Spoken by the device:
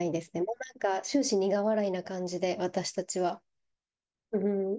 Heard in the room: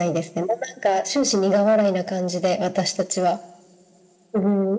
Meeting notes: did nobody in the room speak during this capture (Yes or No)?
Yes